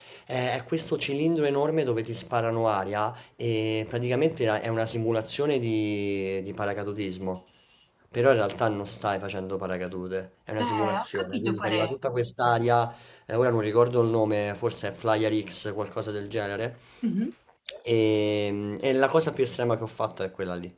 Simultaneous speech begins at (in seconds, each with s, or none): 10.6 s